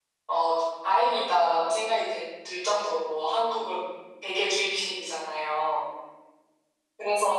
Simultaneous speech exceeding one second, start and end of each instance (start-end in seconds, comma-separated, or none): none